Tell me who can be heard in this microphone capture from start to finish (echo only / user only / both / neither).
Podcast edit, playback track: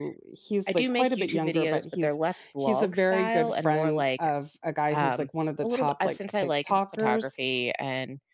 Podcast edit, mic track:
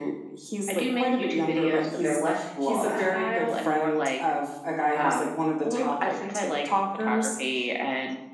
both